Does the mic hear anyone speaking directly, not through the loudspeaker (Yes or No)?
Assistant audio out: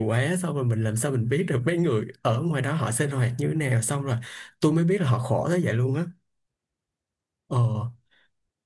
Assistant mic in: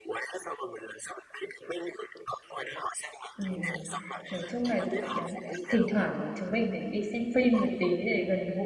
Yes